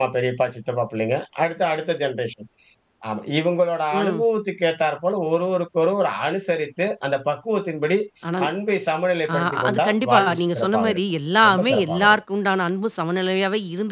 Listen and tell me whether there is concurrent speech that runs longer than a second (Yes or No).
Yes